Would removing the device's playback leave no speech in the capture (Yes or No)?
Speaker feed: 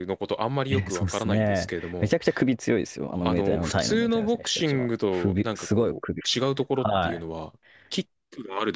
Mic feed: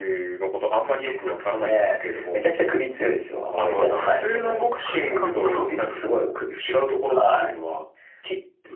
No